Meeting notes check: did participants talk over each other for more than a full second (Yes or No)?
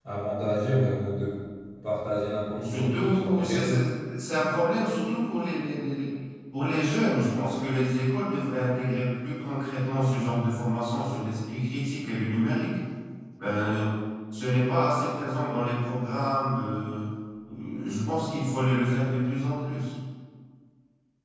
Yes